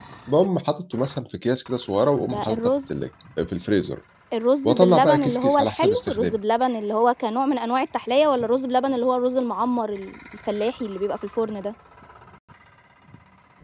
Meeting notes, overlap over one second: present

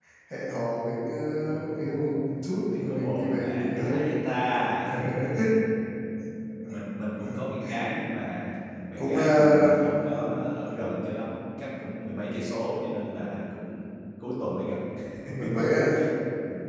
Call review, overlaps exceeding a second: present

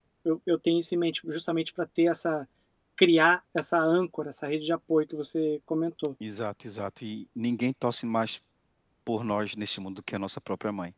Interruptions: none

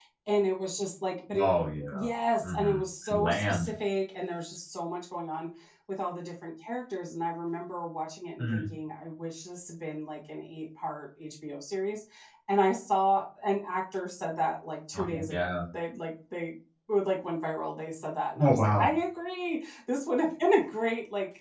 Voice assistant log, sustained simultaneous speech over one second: present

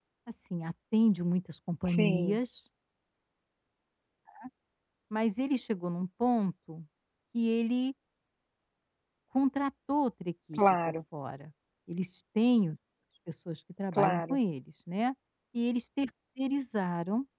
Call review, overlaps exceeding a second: none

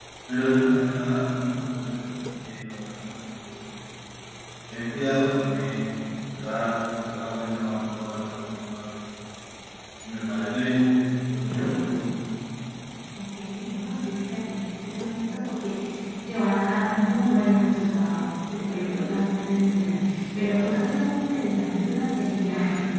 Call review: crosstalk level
none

